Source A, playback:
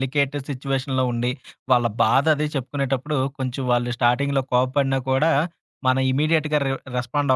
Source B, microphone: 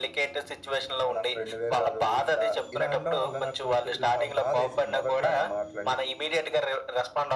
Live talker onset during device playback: 1.0 s

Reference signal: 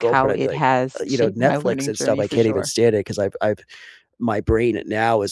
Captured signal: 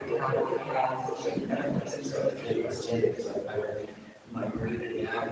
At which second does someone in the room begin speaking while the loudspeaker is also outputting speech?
none

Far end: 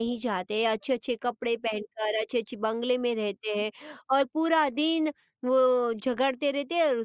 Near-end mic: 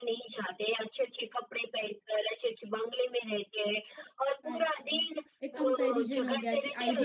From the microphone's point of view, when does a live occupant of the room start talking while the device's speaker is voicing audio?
4.5 s

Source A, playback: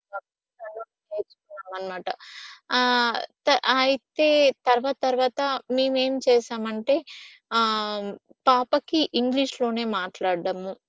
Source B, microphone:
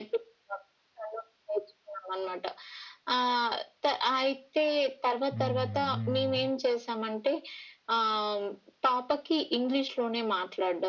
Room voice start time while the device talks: 5.3 s

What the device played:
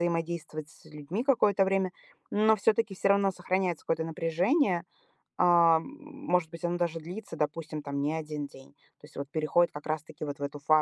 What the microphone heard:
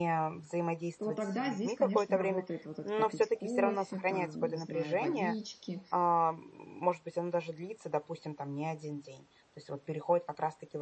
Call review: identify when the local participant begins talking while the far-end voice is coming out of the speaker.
1.0 s

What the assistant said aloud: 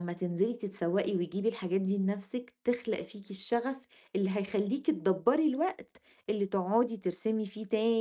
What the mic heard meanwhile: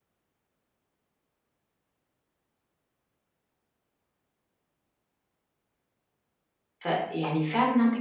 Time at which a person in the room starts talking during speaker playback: 6.8 s

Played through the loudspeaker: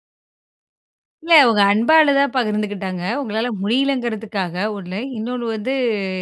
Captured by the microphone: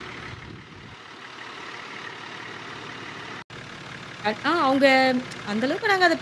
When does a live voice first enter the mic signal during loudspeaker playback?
4.3 s

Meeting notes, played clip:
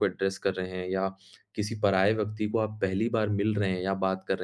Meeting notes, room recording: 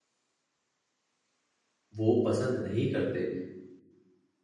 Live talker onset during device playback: 2.0 s

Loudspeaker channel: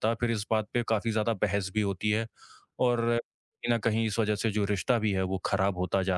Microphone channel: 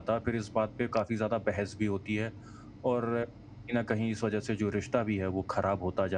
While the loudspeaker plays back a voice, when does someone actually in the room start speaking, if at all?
none

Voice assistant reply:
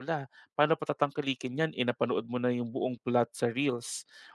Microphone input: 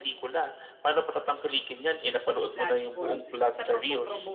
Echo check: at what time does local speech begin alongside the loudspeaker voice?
2.6 s

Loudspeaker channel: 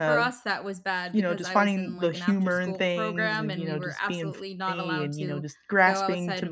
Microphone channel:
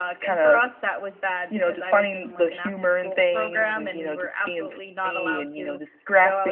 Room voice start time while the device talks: none

